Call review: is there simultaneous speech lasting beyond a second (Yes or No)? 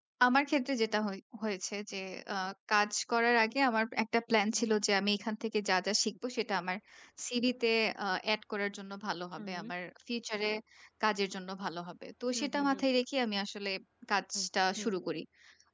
No